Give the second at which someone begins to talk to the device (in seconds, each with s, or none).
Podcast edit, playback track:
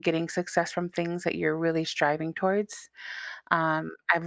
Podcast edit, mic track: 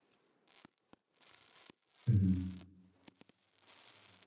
2.0 s